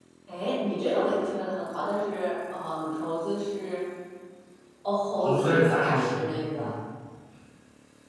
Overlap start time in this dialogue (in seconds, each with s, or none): 5.2 s